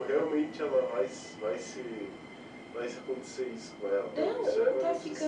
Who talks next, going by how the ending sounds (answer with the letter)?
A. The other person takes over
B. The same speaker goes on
A